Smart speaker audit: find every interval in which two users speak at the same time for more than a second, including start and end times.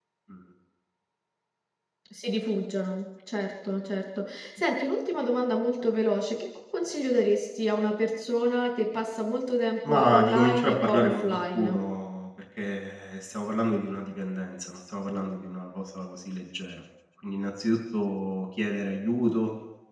9.9-11.8

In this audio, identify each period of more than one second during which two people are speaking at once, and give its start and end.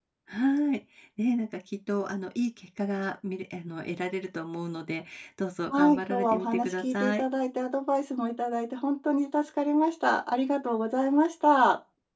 5.8-7.2

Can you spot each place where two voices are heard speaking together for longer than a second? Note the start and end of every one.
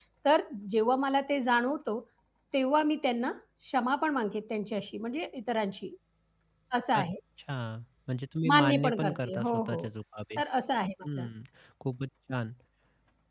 8.5-9.8

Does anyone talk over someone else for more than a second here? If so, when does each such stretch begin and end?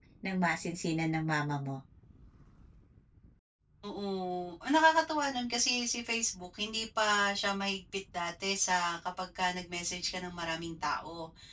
none

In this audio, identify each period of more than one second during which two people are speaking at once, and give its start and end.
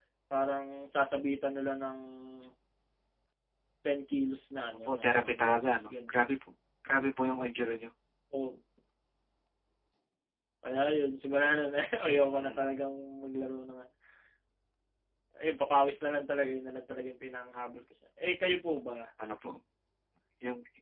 4.7-6.2

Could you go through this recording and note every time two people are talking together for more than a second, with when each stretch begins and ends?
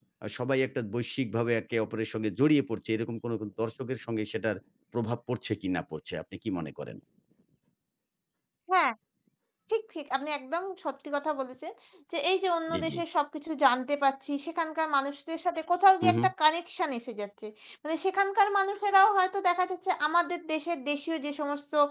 none

